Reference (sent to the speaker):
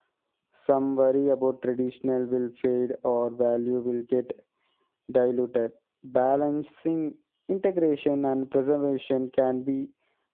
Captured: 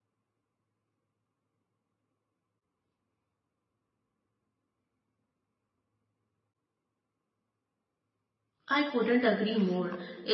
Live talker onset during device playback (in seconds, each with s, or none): 8.7 s